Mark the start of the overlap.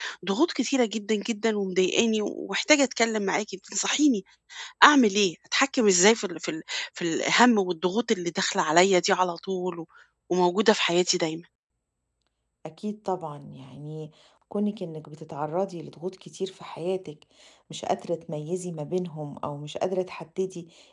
none

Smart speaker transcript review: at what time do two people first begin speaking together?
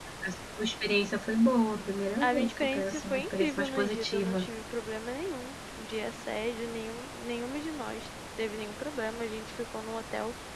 2 s

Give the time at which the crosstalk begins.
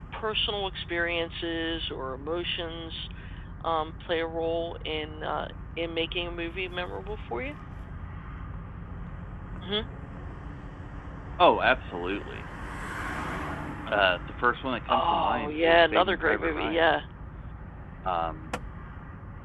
15 s

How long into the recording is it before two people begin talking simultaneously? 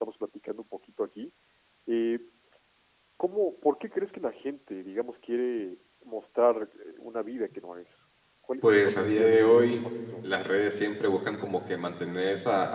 9 s

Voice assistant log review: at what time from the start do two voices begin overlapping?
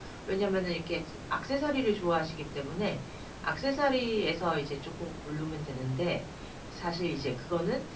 none

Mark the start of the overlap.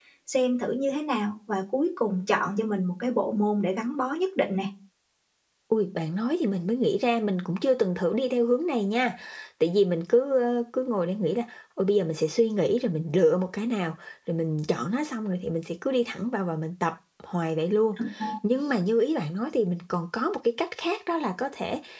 none

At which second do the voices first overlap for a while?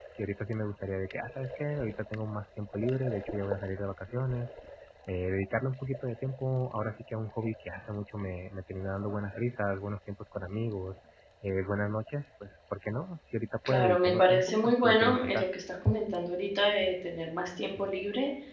14 s

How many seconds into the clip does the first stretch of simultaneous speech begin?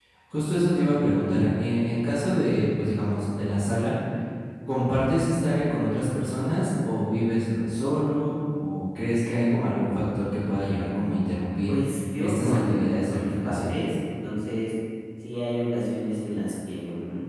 12 s

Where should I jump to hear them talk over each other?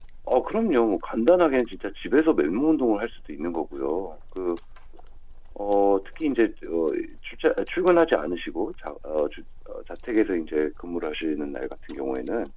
none

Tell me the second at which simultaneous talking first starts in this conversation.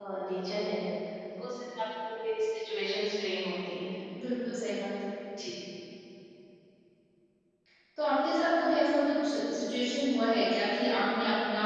none

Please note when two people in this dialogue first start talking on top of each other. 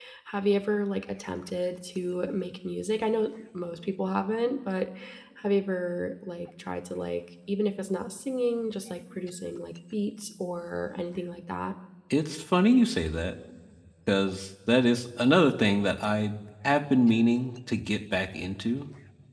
none

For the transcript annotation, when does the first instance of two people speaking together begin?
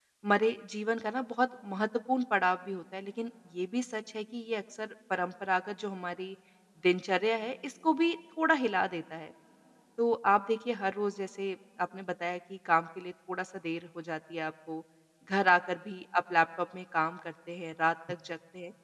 none

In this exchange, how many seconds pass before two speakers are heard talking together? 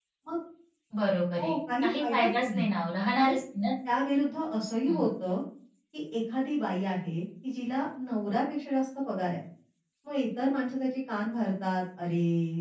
1 s

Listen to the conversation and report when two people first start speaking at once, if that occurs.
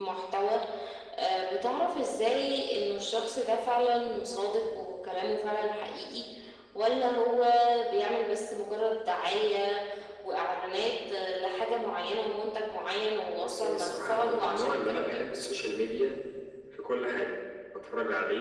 13 s

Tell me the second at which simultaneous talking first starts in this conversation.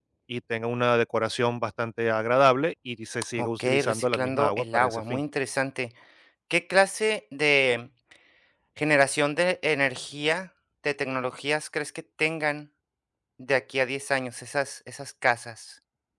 3 s

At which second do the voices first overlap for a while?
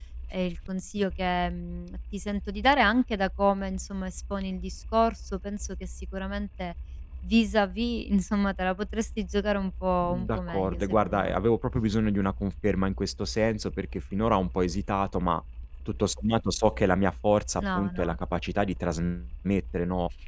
10 s

